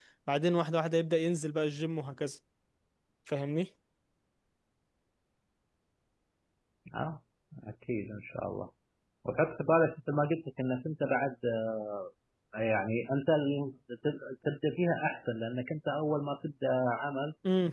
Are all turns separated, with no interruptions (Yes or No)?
Yes